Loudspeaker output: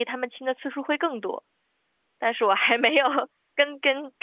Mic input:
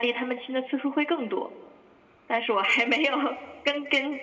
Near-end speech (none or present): none